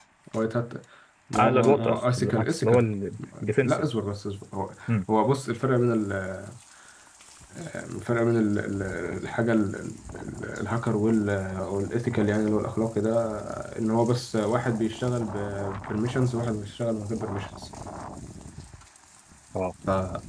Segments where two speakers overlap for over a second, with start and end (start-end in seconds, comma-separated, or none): 1.4-2.8